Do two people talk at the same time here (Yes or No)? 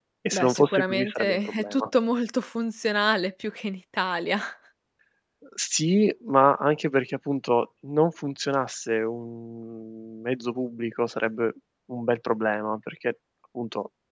Yes